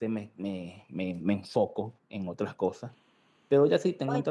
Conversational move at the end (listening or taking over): listening